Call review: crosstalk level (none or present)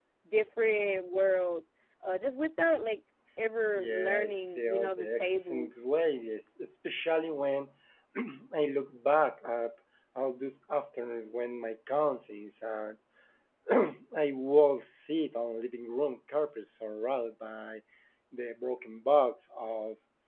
present